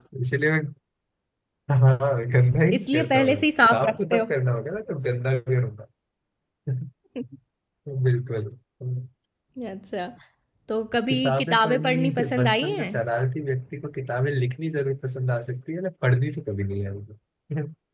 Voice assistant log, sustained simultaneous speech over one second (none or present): present